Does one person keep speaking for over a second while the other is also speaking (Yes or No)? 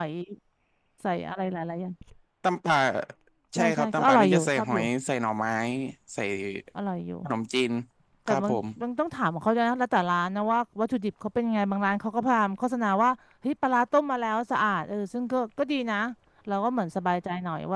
Yes